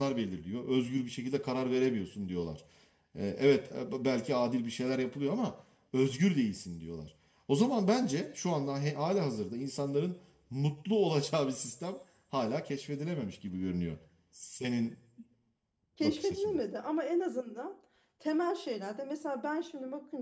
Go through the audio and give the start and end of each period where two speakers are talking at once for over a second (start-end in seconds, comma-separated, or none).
none